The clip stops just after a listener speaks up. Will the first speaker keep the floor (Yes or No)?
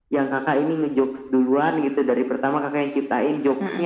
Yes